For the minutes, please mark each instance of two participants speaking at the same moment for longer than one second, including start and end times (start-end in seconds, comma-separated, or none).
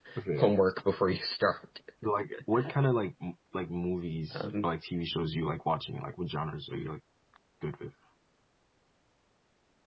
none